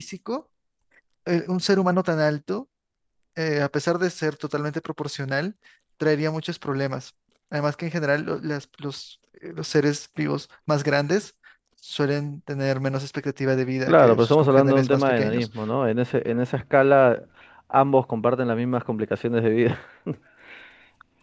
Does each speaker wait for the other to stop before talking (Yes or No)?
No